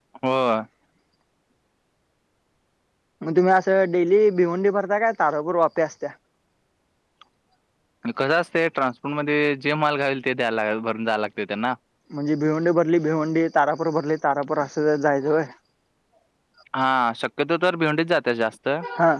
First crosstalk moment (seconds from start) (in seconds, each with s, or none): none